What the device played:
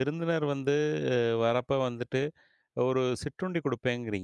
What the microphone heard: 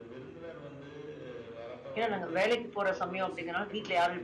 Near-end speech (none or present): present